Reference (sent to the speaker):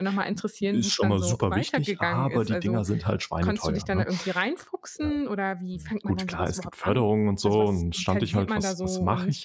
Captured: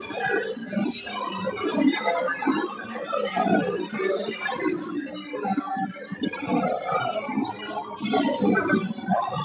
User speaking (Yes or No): Yes